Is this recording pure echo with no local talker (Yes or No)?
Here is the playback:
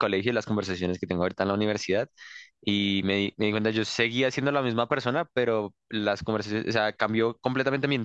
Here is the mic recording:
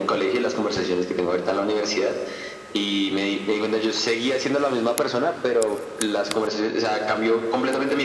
Yes